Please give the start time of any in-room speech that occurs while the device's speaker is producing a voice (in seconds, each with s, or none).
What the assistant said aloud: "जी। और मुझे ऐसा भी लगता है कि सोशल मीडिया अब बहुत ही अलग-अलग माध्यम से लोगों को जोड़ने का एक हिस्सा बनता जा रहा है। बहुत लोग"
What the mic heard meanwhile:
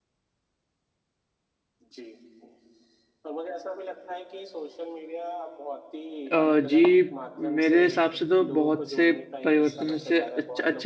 6.3 s